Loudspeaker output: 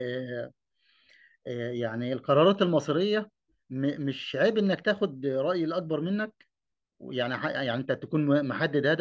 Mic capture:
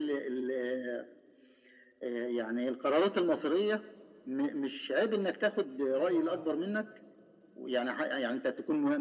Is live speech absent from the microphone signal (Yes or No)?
No